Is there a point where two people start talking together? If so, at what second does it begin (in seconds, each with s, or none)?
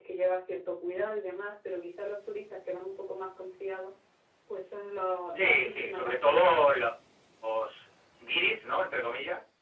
5.3 s